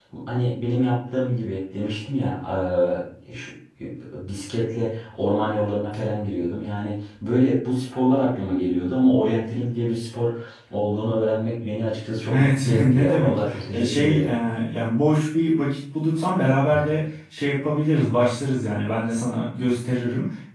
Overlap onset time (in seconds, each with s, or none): 12.3 s